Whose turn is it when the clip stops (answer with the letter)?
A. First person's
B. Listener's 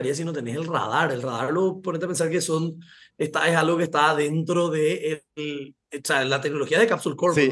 B